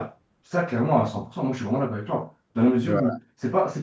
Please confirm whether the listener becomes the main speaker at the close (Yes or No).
No